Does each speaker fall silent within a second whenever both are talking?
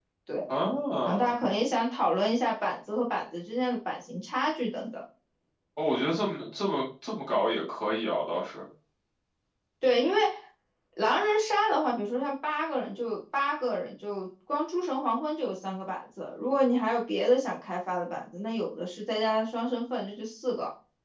Yes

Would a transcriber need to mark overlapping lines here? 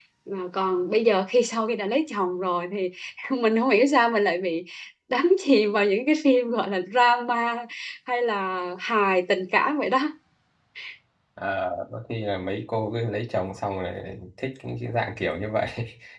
No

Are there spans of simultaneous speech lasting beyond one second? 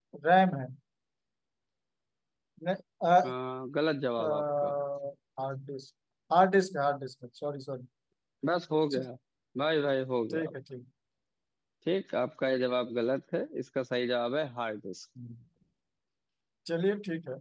No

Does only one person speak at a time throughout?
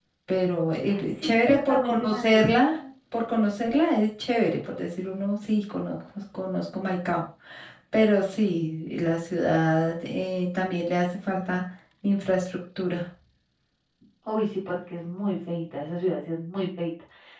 No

